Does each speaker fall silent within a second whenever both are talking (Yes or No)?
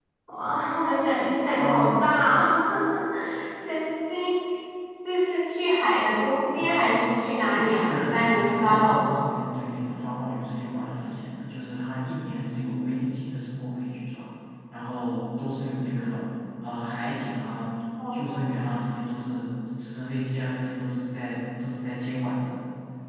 No